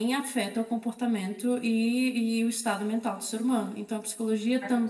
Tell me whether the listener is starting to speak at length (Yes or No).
No